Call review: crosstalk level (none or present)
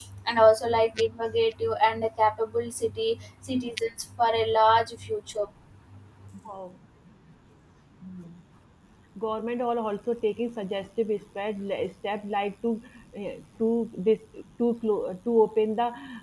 none